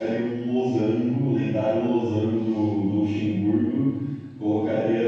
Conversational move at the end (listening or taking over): listening